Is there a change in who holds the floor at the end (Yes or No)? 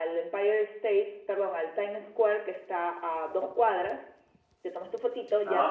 No